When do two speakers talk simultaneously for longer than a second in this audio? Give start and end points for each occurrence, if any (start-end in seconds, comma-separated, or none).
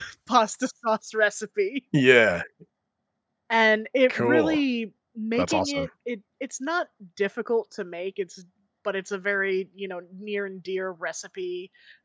none